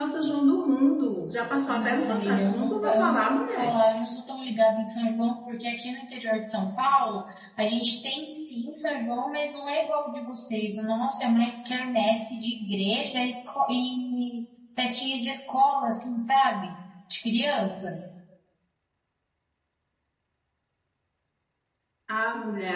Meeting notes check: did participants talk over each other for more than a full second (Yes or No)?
Yes